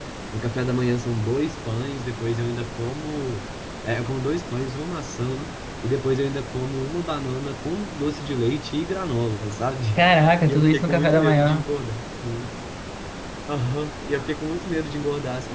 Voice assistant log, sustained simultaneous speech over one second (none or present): present